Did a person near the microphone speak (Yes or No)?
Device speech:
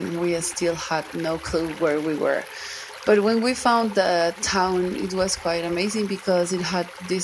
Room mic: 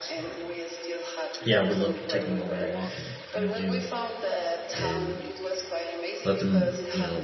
Yes